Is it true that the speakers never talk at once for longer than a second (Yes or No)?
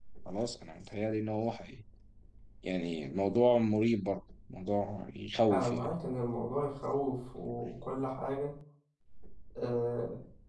Yes